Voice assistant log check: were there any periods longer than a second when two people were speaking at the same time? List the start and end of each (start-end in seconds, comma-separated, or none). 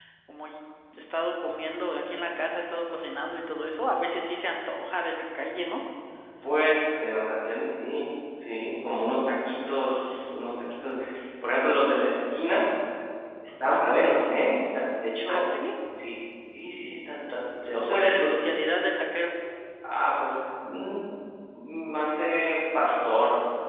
none